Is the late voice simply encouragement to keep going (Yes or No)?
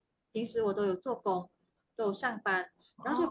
Yes